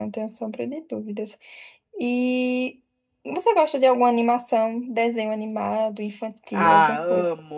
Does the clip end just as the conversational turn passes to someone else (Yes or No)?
Yes